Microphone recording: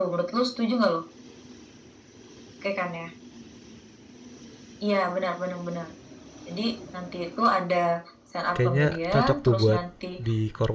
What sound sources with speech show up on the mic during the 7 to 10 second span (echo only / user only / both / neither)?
both